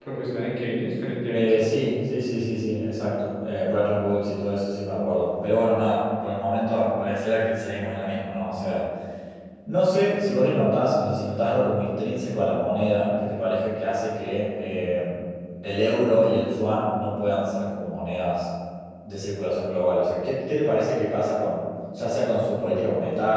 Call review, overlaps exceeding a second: none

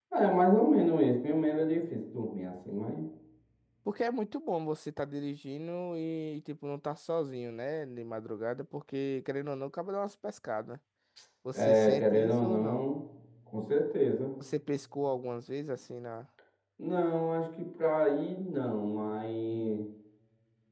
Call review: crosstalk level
present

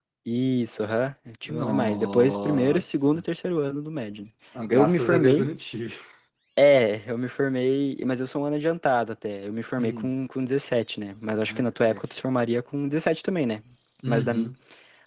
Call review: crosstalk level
present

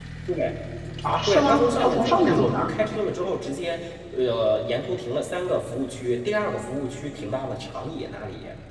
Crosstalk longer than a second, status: present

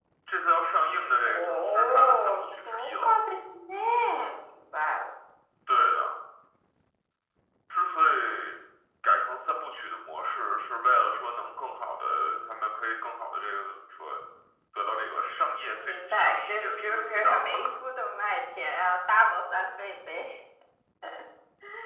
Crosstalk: present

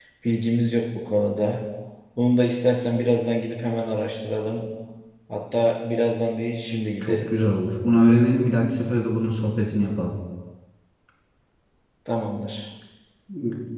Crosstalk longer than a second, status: none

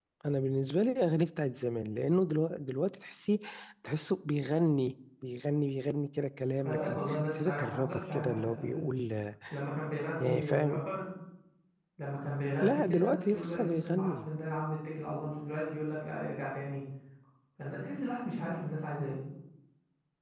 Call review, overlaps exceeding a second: present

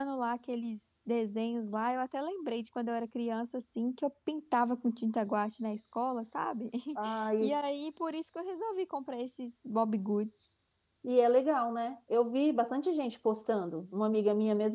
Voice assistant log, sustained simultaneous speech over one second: none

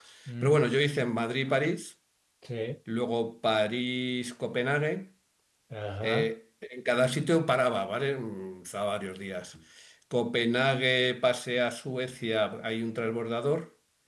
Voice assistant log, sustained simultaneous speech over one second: none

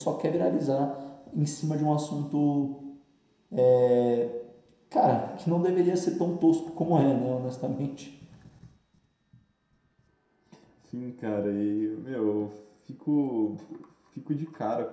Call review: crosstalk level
none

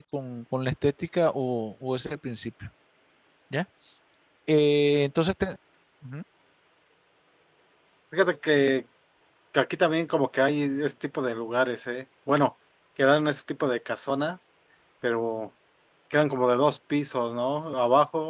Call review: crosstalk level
none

